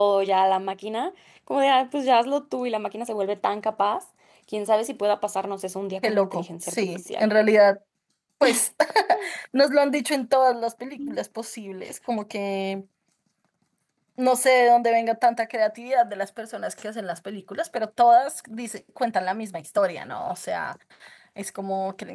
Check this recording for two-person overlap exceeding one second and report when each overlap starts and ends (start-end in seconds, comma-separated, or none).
6.0-7.2